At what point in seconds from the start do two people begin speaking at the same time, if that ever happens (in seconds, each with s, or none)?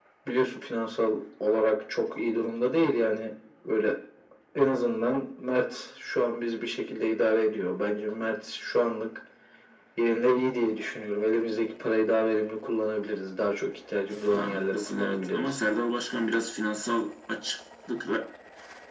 14.3 s